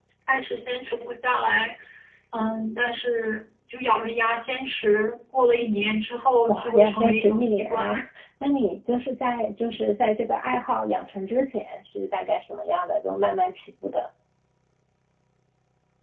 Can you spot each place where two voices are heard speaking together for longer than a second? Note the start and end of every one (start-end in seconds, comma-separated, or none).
6.5-7.9